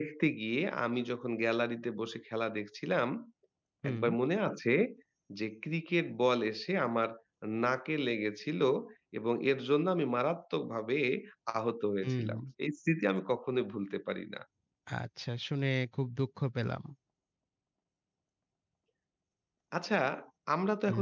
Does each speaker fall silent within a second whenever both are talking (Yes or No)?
Yes